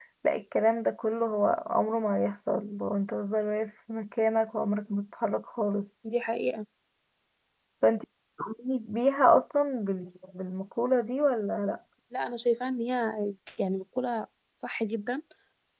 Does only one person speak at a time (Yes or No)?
Yes